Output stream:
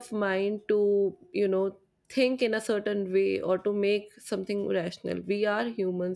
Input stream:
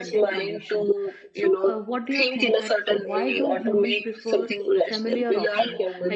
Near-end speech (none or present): present